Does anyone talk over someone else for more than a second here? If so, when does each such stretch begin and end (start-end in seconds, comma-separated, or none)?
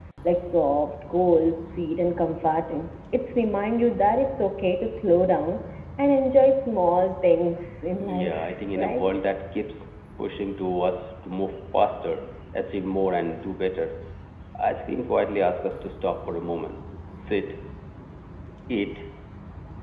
8.0-9.2